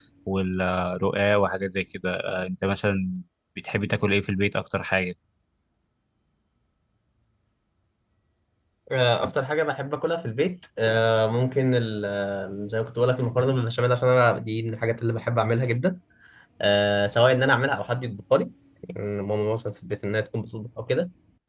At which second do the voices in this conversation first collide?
none

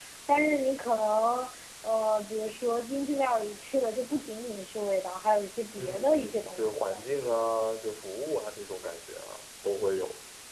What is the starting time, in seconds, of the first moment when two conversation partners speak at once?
5.8 s

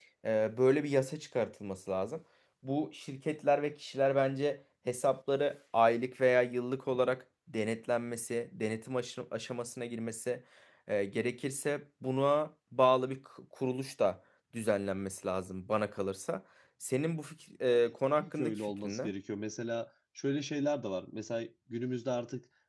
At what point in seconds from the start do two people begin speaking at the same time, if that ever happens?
17.7 s

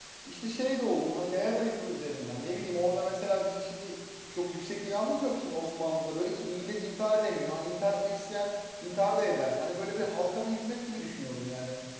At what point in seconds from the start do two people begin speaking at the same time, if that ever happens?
none

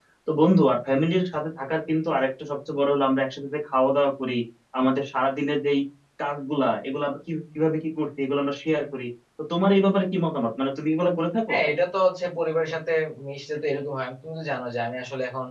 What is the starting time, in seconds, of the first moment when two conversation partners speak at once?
none

